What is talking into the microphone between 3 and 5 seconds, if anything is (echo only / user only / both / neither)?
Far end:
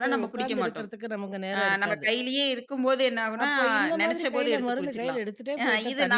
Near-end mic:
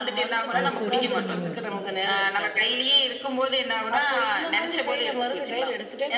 echo only